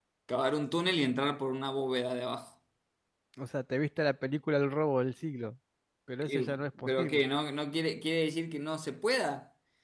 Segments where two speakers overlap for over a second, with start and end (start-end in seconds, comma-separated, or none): none